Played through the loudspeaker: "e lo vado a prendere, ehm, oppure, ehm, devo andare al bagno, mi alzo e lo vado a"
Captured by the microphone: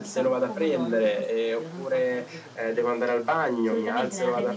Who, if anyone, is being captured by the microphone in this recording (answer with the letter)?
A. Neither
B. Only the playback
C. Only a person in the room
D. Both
D